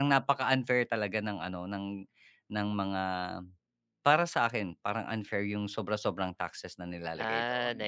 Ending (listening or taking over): taking over